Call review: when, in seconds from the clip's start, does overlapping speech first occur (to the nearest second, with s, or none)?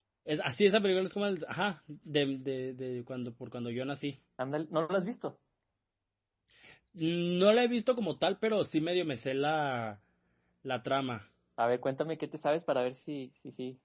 none